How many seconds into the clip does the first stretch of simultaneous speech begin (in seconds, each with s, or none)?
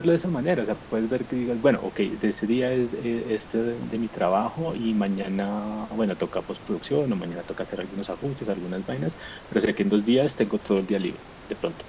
none